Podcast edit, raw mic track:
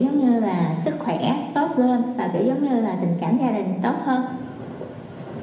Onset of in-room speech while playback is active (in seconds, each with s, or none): none